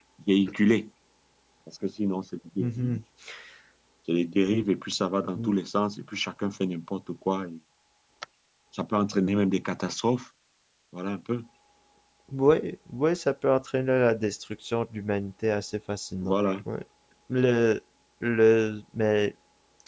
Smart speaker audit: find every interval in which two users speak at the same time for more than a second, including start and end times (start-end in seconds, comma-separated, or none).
none